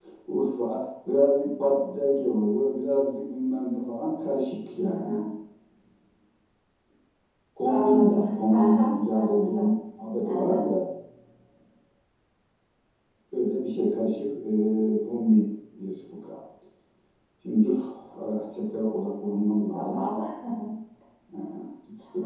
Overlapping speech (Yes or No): Yes